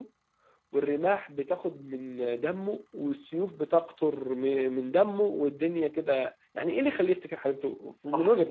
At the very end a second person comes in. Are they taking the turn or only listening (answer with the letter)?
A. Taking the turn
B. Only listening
A